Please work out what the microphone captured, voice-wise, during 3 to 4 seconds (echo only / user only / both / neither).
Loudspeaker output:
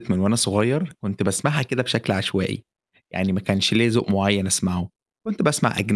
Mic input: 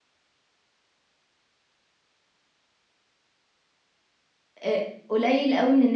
neither